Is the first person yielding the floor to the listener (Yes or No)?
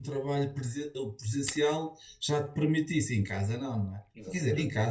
No